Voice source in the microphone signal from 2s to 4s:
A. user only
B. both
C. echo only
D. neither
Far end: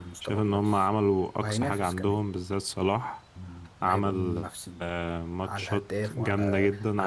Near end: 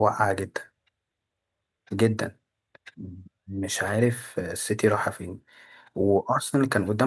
A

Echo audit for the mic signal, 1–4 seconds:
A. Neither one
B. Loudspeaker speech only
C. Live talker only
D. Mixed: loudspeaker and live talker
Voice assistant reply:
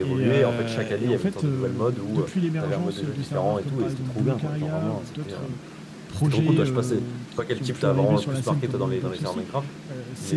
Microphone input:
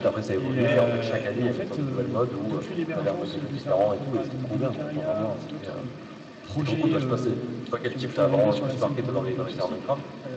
B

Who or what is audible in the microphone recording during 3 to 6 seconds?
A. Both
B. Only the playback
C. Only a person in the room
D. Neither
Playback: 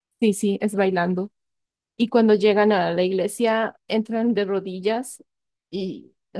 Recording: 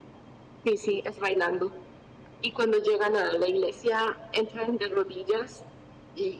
B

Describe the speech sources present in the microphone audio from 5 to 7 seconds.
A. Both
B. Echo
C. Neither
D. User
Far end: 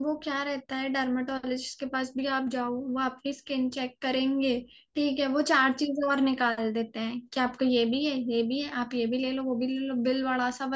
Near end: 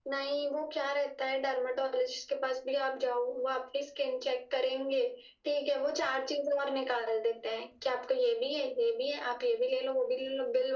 B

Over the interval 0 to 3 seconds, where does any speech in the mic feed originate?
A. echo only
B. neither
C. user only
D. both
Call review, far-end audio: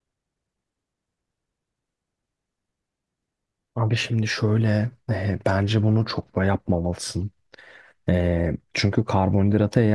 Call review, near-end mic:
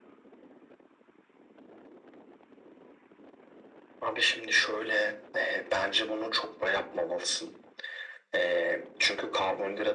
B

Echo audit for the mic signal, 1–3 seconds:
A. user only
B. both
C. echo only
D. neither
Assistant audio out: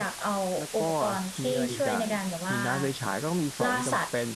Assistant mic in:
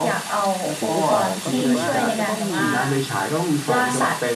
B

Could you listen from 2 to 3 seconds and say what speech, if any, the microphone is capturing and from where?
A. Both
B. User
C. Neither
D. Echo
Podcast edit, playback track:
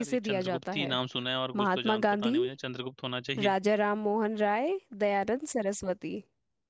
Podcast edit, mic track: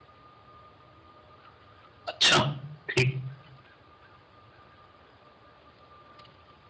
B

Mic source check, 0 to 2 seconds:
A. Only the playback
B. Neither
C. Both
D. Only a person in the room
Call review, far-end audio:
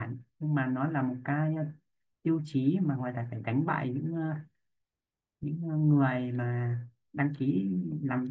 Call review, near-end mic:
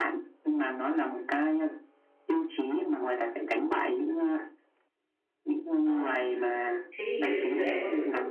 A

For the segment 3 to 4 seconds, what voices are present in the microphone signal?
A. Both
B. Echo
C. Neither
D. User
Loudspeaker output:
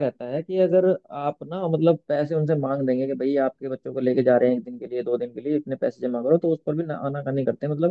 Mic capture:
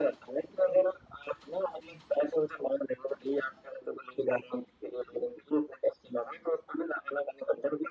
B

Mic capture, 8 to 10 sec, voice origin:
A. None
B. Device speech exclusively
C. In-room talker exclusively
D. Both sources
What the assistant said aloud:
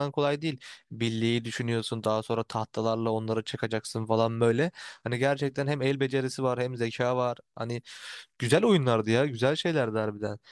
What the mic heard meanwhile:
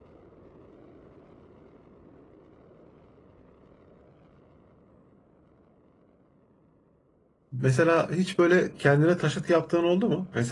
C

